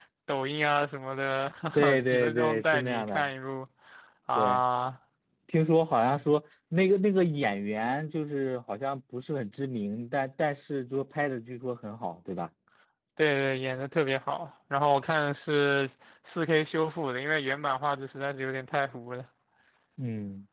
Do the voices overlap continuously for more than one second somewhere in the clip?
Yes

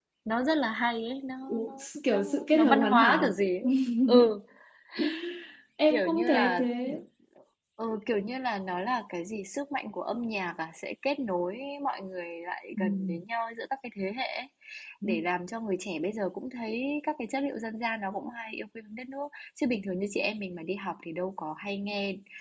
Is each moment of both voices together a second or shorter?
No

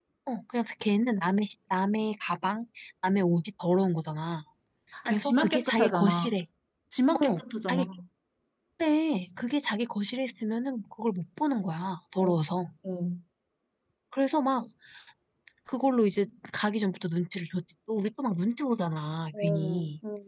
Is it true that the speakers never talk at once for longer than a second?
No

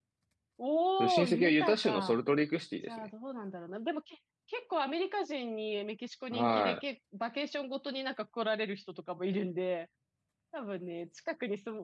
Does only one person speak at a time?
No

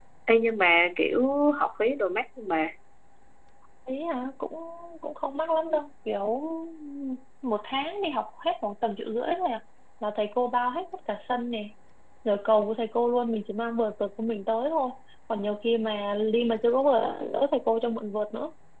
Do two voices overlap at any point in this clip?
No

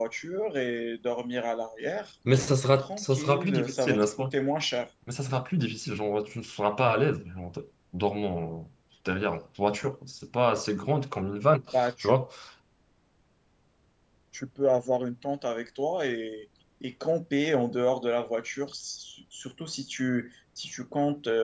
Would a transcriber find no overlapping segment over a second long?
No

